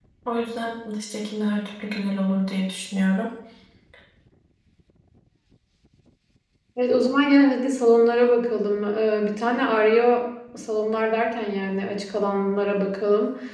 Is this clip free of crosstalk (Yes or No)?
Yes